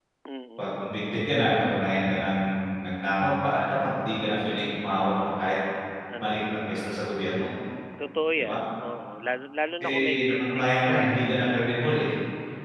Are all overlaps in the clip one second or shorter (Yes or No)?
No